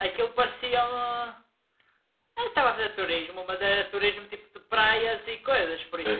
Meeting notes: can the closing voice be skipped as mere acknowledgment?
No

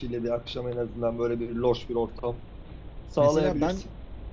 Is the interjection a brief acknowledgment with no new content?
No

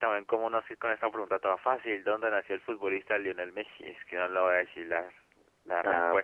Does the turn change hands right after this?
Yes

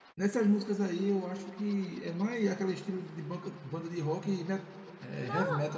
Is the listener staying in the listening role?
No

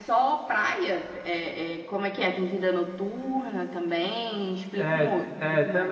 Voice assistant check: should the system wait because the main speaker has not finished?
No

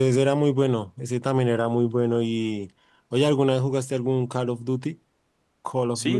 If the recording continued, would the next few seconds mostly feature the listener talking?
Yes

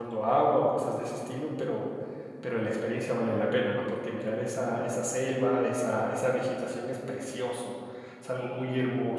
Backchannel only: Yes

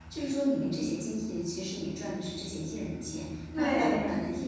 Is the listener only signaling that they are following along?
Yes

